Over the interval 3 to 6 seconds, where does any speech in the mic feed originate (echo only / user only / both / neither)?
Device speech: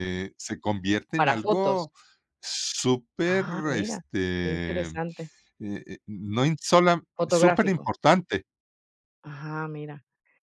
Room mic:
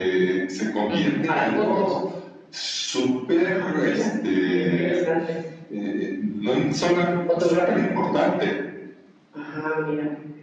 echo only